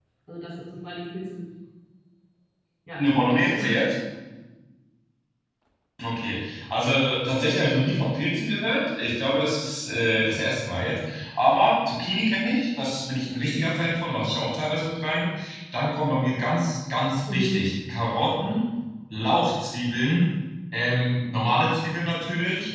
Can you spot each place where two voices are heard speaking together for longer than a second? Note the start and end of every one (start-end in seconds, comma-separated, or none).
none